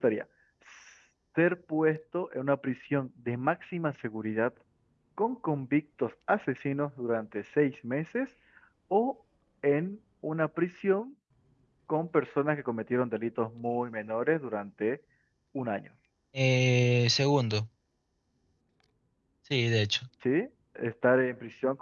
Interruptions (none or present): none